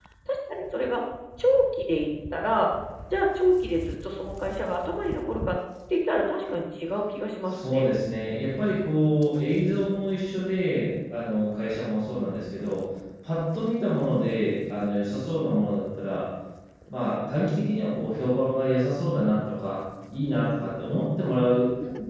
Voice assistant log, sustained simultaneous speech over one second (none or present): none